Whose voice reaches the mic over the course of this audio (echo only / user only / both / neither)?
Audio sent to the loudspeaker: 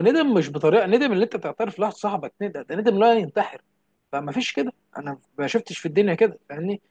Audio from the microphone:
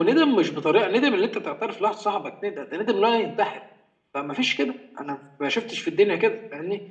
echo only